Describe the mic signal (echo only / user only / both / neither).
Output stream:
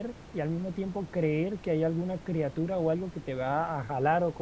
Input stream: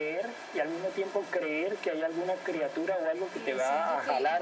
both